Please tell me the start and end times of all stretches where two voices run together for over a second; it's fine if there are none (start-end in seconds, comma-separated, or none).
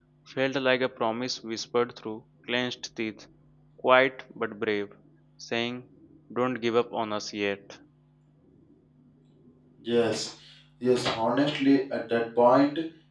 none